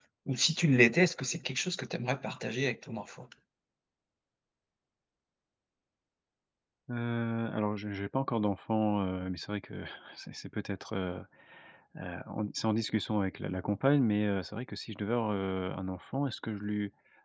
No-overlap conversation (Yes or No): Yes